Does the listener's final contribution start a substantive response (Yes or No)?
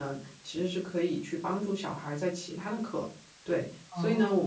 No